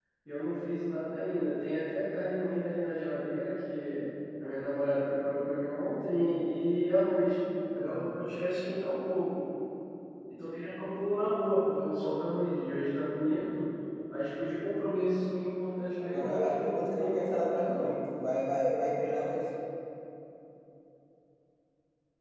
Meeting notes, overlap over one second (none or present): present